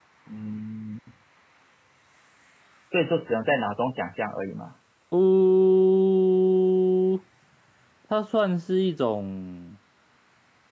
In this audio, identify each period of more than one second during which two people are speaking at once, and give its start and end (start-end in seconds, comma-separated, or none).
none